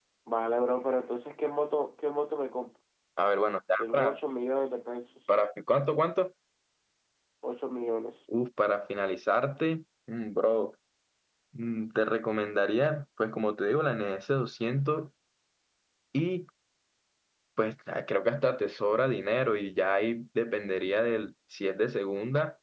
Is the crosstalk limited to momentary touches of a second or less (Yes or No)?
Yes